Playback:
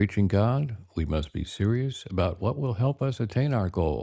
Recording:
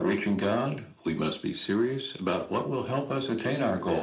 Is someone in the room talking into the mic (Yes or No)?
No